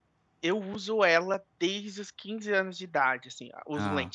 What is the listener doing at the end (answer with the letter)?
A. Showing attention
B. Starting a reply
A